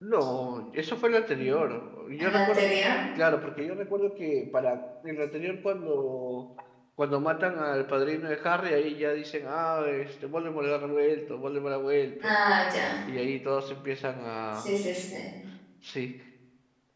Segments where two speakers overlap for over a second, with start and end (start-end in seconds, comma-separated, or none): none